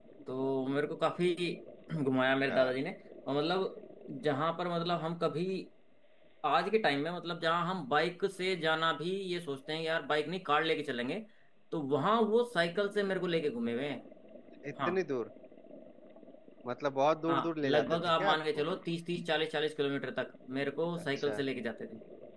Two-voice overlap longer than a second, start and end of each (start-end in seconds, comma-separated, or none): 17.3-18.6